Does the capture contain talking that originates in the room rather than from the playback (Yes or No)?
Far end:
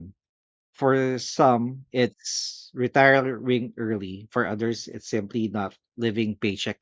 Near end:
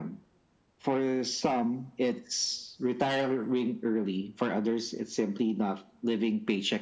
No